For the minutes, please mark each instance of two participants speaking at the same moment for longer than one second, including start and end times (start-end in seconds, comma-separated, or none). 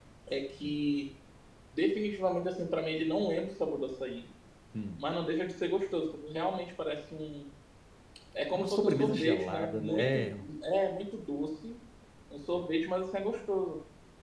8.5-10.4